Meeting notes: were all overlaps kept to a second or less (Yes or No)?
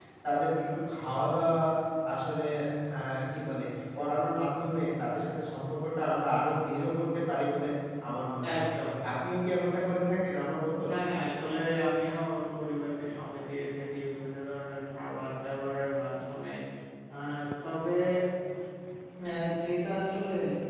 Yes